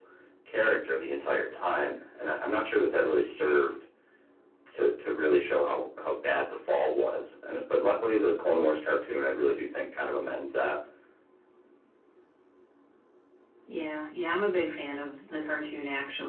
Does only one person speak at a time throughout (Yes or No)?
Yes